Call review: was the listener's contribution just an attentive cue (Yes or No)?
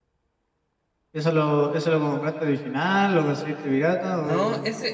No